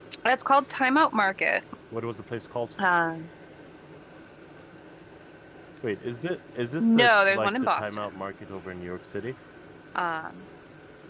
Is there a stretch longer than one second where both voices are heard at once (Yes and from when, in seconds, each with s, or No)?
Yes, from 6.8 s